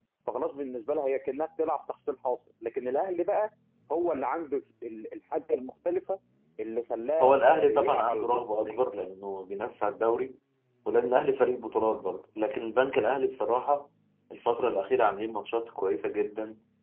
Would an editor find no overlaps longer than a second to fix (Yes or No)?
No